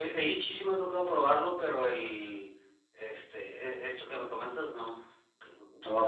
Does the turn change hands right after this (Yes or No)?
Yes